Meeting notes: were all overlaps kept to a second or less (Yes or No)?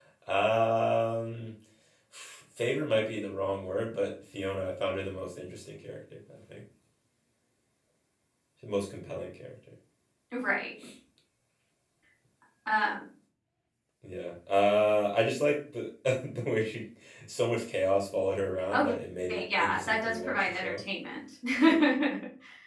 No